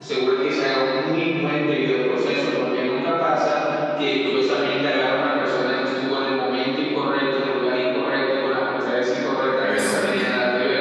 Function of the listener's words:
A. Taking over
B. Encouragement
B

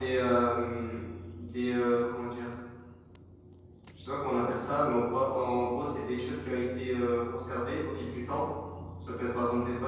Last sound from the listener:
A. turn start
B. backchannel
B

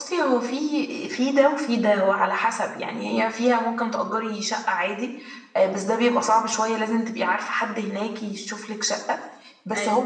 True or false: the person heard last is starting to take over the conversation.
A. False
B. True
A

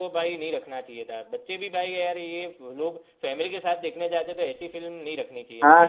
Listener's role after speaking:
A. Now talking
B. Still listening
A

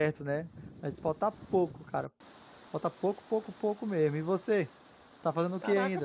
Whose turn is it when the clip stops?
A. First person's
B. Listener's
B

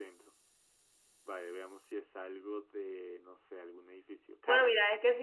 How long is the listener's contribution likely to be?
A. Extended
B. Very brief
A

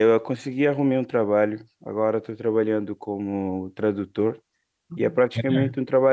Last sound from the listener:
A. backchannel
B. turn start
A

